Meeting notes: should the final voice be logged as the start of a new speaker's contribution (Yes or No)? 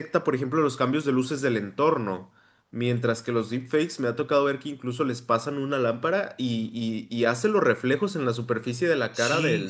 Yes